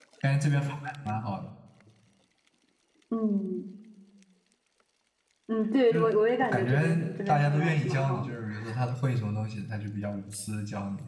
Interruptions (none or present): present